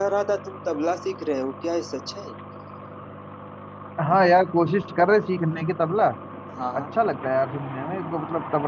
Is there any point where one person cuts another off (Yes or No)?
No